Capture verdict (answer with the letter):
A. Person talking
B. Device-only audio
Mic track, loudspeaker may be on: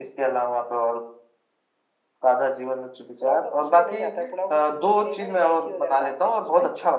B